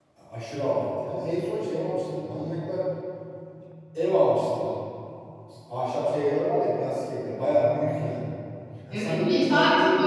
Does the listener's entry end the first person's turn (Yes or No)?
Yes